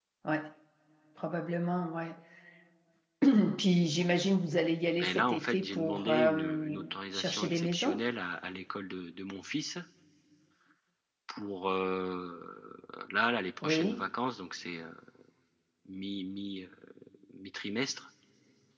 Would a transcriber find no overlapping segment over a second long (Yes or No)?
No